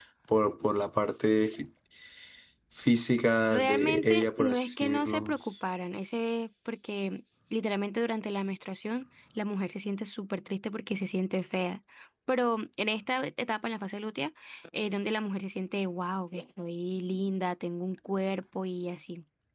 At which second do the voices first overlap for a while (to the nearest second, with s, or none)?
3 s